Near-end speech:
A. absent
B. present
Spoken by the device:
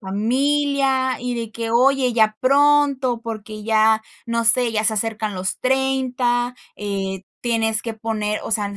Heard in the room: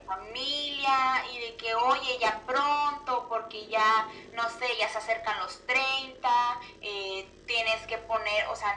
A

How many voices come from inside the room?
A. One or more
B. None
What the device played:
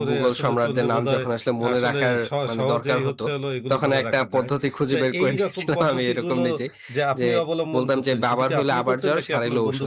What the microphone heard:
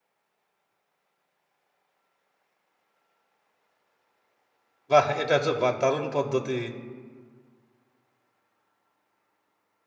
A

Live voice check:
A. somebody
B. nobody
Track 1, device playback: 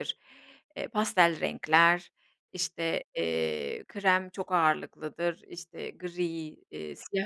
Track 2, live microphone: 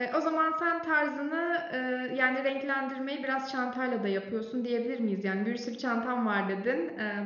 A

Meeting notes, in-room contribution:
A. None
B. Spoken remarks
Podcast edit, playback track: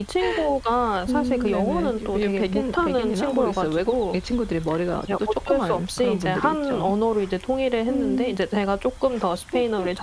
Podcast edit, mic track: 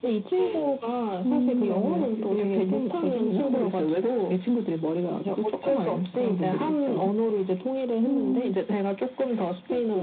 A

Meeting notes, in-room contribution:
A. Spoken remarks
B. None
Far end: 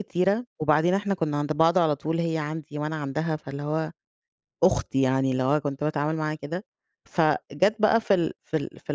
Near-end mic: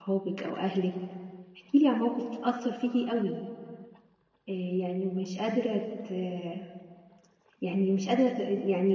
A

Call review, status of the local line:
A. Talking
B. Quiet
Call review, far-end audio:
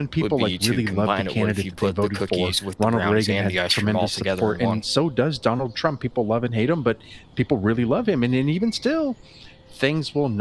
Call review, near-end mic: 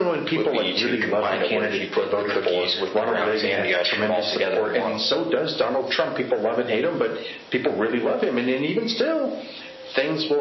B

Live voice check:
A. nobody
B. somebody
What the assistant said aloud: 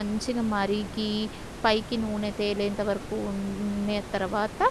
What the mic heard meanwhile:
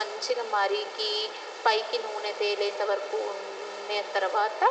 A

